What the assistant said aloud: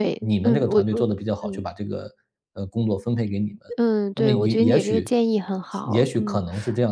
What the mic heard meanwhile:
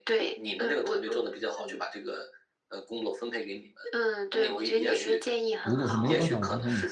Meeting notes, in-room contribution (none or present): present